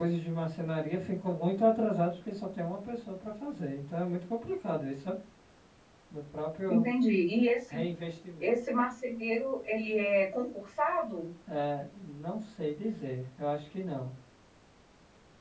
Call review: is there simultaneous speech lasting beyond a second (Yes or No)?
No